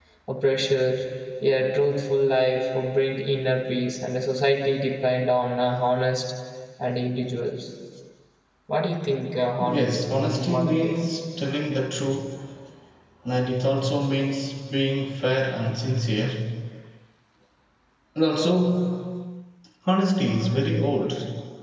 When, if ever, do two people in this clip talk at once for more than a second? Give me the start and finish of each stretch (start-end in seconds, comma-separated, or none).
9.6-11.0